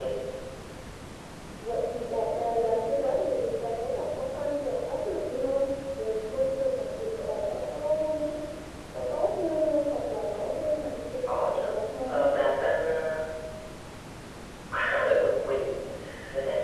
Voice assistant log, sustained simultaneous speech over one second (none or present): none